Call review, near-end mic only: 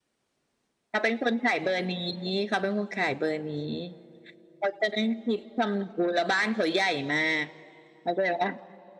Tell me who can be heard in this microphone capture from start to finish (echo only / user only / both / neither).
echo only